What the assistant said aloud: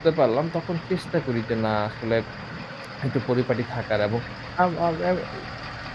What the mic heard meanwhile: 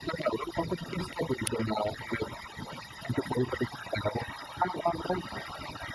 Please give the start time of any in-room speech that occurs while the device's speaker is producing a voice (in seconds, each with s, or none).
none